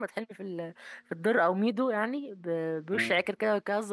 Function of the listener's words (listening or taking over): listening